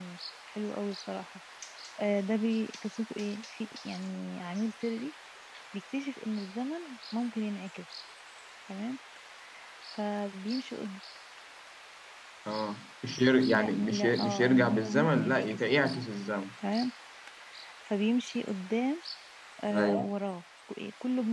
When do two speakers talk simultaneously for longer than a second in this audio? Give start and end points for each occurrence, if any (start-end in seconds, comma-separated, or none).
13.5-16.1